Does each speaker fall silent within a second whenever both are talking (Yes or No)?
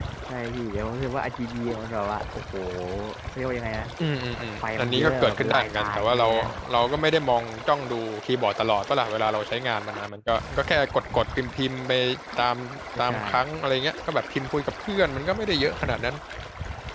No